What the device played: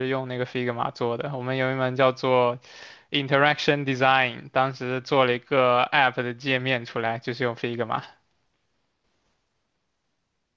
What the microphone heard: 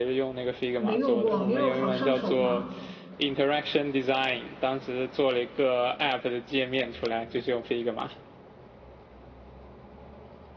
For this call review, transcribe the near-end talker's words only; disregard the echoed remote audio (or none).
还没用过 Miro 好上手吗？